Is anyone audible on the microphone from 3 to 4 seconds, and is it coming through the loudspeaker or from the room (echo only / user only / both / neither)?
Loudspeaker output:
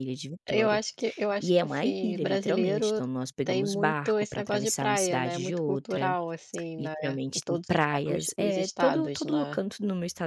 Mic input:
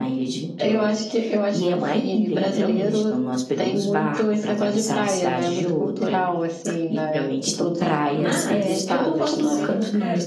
echo only